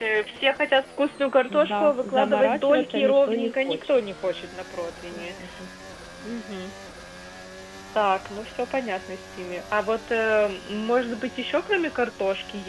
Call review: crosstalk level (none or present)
present